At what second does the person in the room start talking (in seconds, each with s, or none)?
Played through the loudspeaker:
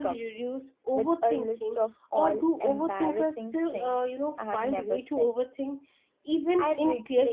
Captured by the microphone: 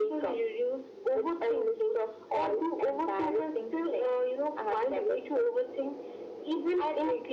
none